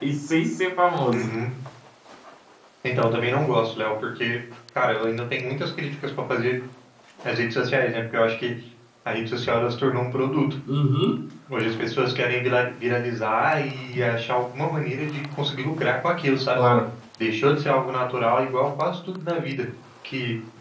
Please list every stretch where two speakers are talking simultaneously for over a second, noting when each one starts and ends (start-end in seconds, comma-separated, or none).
none